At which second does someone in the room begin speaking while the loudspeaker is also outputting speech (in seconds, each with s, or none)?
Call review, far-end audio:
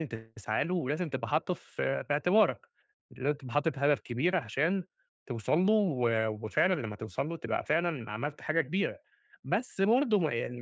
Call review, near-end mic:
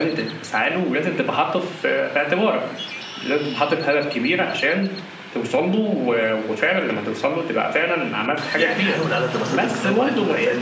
8.5 s